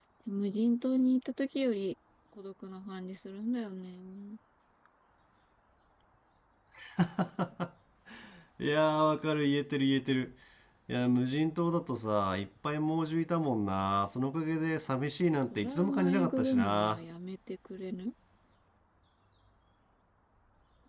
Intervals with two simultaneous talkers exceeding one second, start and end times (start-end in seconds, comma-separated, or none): 15.5-17.0